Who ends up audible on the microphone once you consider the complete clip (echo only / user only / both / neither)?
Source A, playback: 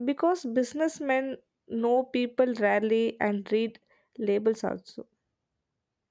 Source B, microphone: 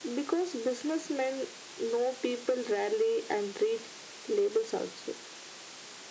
echo only